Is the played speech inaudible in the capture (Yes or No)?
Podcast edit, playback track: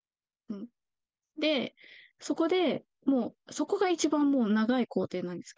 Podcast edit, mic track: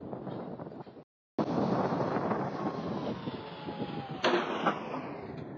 Yes